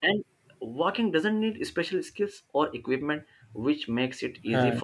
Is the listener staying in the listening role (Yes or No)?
Yes